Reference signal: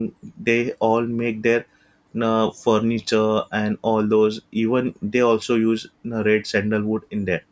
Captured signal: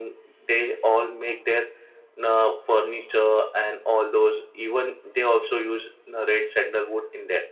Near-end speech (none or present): none